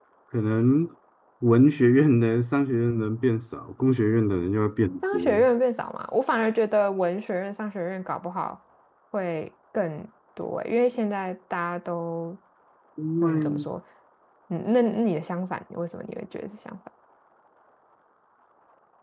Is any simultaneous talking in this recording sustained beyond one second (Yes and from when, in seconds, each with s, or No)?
No